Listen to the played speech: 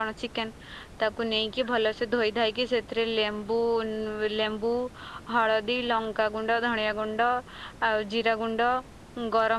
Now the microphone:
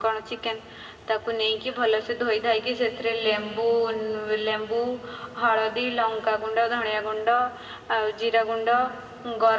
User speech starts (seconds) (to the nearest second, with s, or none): none